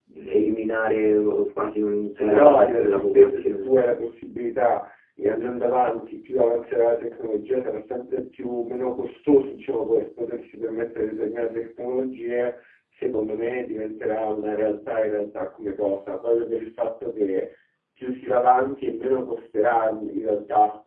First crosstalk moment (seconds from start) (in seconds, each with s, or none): 2.3 s